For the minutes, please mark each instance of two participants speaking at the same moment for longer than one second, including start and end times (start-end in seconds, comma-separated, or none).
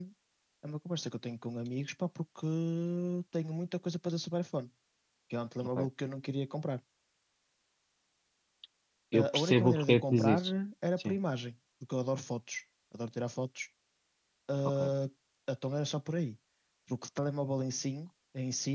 9.1-10.4